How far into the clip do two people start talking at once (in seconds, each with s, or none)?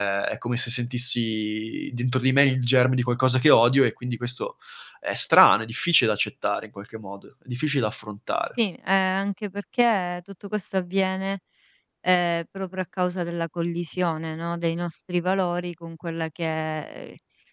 none